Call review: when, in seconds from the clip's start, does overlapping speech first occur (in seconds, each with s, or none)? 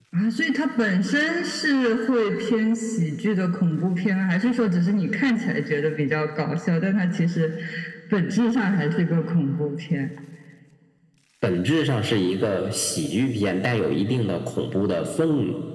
none